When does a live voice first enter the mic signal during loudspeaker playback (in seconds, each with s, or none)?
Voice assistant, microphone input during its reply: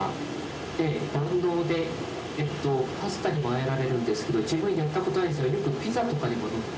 none